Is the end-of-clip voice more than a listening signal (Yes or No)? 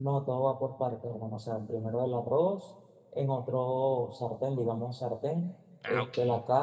No